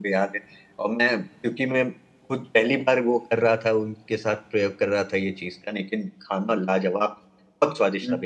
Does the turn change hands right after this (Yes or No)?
No